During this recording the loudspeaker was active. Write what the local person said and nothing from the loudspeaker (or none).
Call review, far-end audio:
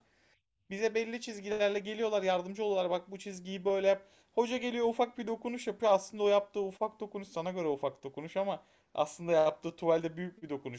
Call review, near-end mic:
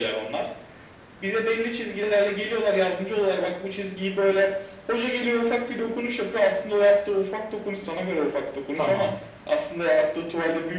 Tamam.